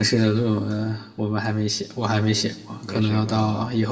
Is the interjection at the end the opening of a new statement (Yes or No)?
Yes